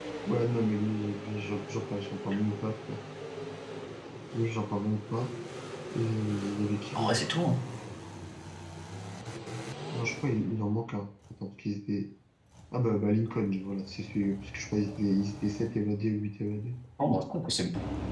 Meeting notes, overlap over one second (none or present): none